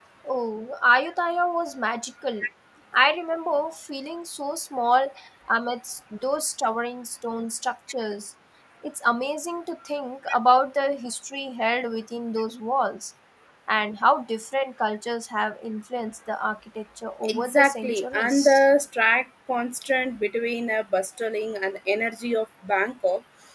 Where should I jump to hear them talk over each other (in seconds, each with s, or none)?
17.2 s